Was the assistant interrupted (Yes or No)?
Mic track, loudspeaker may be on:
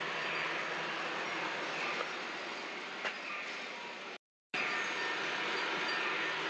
No